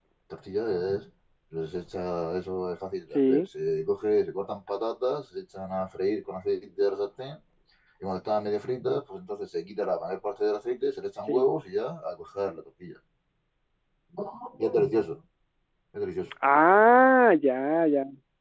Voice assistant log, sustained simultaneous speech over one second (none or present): none